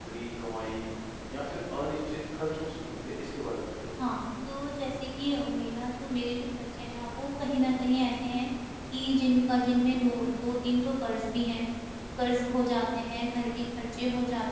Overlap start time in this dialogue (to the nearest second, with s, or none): none